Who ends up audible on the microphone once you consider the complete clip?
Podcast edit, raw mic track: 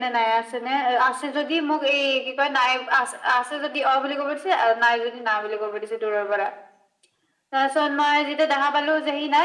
echo only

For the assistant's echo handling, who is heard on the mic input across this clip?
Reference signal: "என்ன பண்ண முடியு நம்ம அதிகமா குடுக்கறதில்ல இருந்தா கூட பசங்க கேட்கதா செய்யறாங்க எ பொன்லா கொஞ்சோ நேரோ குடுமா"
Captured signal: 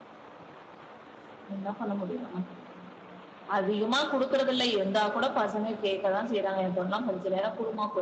echo only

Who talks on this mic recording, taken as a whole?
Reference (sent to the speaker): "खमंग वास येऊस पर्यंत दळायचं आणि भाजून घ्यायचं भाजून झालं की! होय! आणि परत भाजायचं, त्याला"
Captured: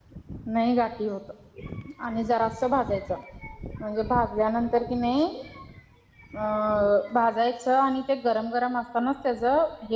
user only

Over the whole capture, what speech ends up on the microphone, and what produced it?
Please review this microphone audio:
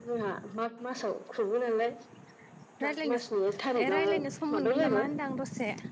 both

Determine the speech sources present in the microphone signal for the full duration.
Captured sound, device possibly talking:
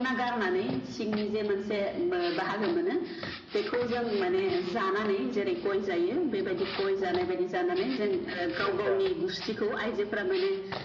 both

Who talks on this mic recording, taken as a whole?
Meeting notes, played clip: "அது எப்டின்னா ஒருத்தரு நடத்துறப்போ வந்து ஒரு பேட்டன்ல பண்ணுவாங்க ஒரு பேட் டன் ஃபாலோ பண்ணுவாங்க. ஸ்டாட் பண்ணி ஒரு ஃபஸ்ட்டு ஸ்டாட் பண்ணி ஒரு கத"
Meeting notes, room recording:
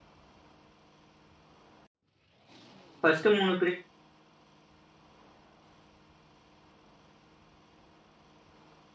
user only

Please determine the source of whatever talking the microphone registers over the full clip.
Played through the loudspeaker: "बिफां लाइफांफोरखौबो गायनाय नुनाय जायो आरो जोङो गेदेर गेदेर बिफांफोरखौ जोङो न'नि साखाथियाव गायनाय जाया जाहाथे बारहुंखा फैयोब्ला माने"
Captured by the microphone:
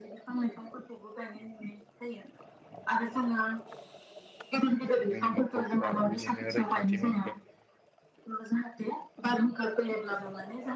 both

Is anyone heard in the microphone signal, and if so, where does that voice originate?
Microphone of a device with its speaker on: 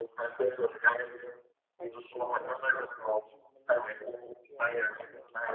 both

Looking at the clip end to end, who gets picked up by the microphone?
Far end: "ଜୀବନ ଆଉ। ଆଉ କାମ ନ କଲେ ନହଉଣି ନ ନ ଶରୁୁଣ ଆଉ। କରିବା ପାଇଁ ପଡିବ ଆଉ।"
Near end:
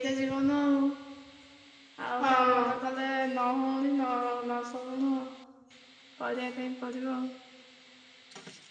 both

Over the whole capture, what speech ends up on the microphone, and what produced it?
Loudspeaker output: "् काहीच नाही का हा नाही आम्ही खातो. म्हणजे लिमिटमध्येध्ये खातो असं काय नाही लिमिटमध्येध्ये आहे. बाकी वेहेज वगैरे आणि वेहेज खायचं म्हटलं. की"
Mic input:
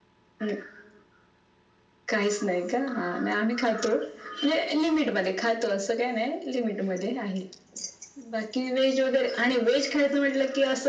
echo only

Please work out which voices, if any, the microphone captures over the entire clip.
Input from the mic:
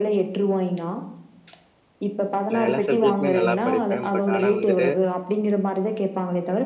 both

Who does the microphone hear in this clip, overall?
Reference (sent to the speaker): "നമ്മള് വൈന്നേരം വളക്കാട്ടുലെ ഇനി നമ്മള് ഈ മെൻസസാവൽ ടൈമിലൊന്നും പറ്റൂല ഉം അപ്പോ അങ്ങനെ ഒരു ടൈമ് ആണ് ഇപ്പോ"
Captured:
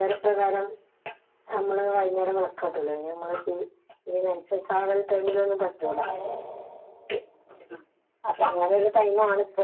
both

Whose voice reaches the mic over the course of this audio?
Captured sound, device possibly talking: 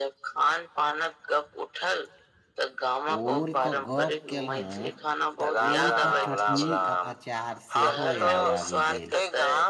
both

